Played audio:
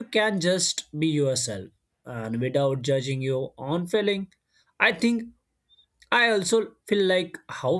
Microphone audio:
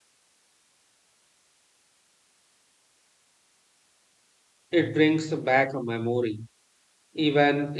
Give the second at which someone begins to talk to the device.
4.7 s

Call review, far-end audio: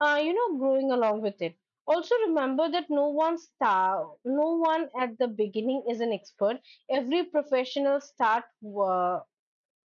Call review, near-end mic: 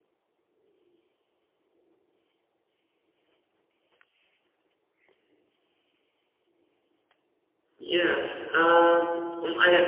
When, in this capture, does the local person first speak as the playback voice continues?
7.8 s

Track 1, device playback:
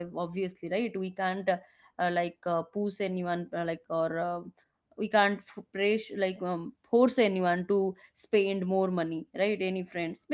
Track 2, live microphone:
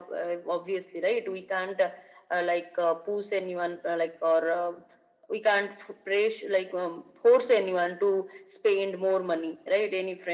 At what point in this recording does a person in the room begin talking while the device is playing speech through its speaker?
none

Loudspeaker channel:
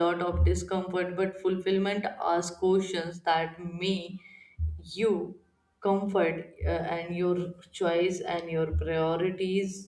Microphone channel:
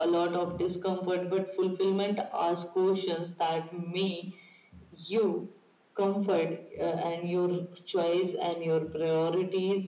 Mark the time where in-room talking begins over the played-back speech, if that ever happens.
none

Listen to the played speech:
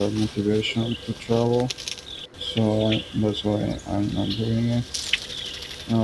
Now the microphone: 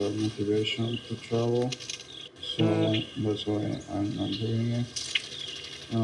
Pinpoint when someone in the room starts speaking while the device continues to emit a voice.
2.6 s

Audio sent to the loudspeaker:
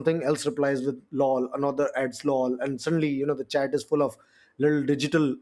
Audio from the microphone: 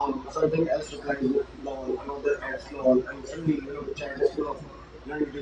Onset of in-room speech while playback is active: none

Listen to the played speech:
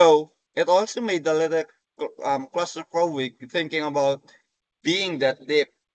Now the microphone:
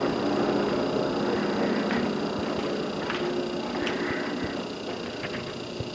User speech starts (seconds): none

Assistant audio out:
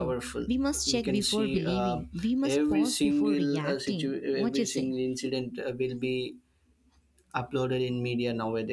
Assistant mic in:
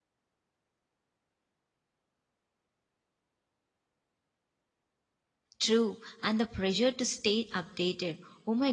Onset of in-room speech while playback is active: 5.6 s

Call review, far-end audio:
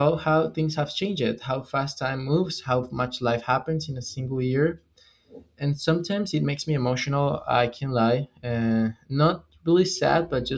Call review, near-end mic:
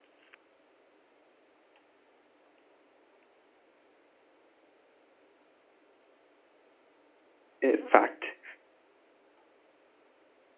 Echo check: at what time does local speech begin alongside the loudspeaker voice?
7.6 s

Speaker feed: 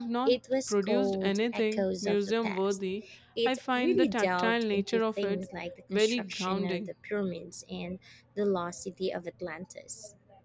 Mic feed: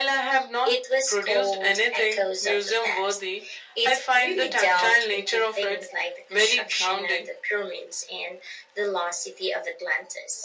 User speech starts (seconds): none

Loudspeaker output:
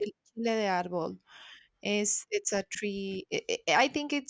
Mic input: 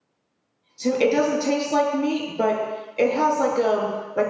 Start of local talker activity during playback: 0.8 s

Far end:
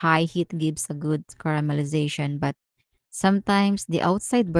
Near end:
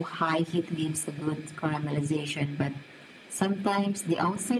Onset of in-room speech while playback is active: none

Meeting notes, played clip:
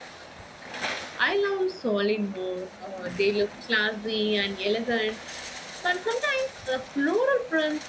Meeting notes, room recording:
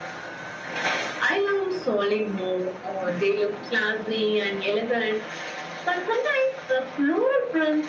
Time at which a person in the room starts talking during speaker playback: none

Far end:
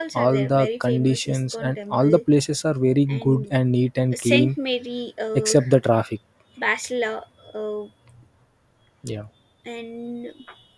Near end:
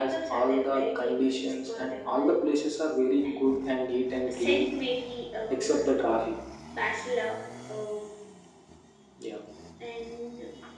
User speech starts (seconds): none

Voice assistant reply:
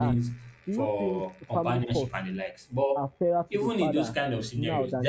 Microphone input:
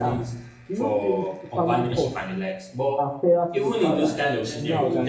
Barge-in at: 3.8 s

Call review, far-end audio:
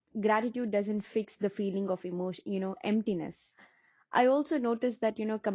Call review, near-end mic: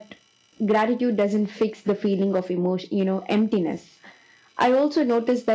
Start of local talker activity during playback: none

